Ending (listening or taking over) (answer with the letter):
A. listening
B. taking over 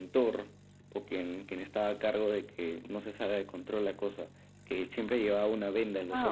B